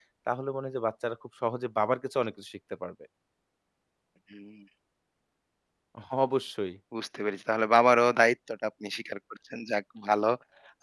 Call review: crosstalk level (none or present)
none